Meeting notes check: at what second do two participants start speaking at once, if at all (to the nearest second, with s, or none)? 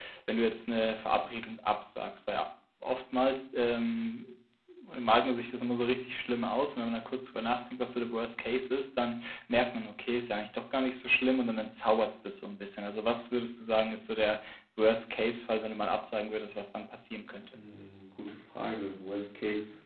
none